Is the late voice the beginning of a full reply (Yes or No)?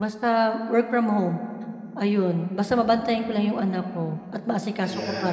Yes